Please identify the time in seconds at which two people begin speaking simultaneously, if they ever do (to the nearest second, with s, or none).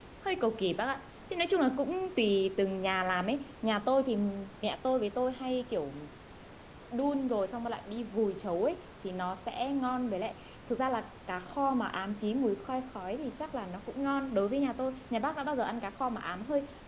none